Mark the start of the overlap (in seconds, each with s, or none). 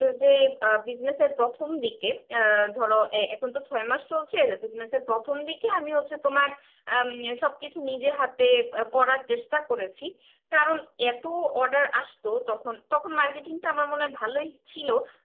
none